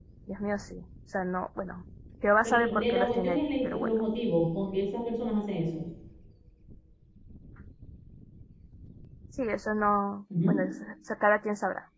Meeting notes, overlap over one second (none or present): present